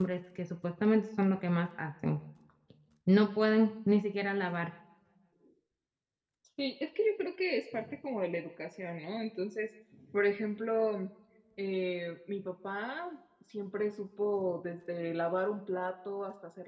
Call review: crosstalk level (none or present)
none